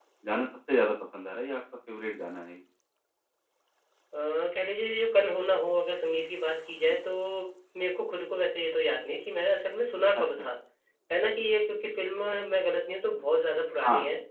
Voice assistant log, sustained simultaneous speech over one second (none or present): none